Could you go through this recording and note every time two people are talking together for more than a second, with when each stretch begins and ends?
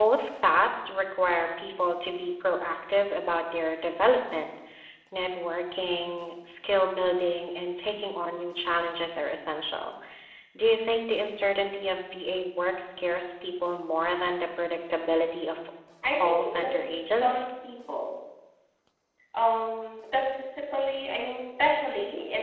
16.1-17.4

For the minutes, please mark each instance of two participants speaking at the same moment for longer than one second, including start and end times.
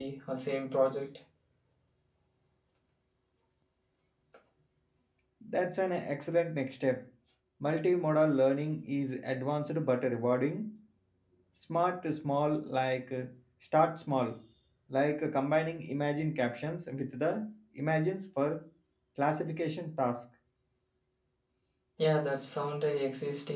none

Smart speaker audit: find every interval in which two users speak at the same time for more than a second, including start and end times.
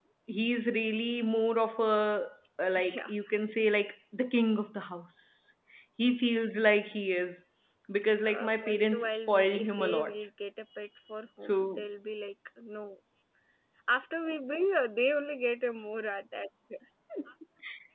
8.2-10.1

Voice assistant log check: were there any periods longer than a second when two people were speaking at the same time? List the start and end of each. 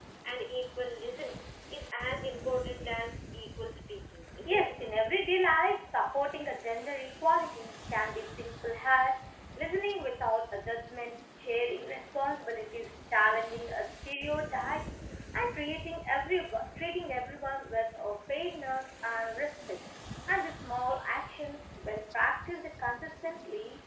none

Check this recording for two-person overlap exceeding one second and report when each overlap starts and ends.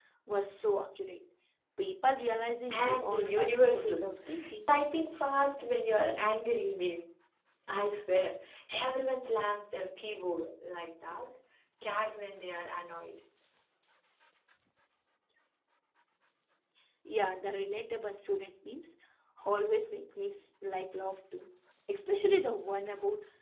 2.7-4.0

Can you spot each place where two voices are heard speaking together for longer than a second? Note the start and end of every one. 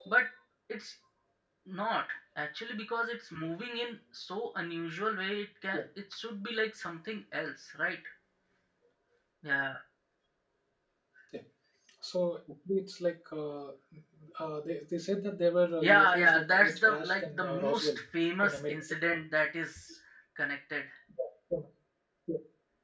15.8-17.9

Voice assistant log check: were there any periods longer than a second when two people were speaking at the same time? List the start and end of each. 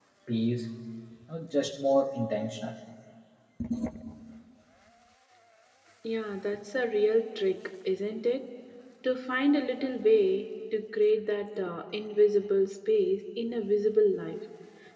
none

